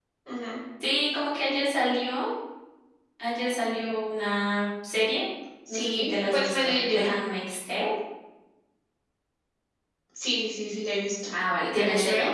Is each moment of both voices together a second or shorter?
No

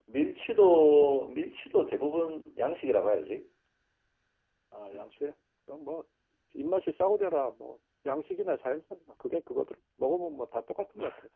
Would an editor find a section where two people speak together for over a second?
No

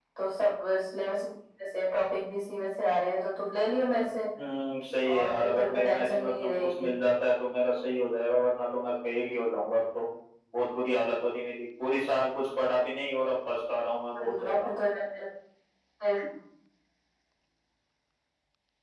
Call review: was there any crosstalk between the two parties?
Yes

